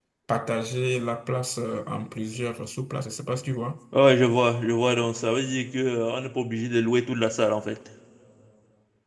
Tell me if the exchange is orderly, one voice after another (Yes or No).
Yes